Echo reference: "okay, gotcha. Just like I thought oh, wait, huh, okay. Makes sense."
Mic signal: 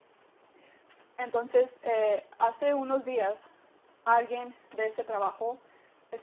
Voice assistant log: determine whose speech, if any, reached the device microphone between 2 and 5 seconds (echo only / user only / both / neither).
user only